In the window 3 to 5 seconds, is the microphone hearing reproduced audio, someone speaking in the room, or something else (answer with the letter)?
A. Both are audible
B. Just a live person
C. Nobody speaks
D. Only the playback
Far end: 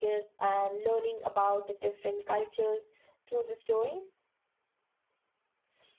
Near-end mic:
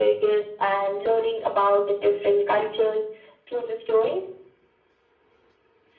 D